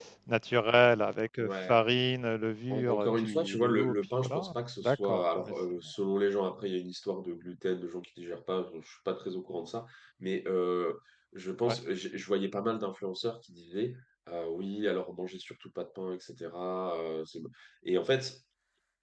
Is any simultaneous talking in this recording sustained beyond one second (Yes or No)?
Yes